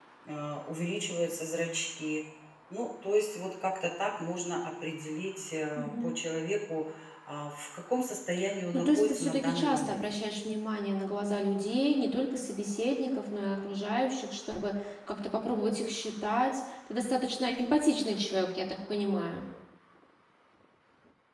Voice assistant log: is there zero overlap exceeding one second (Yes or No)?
No